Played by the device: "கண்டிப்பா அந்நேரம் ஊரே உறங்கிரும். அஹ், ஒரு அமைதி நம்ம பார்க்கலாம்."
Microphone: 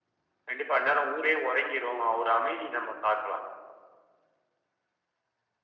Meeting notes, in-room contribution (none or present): none